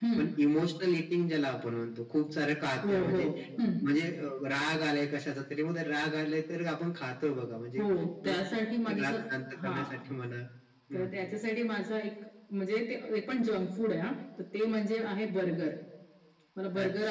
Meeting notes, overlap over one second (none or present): none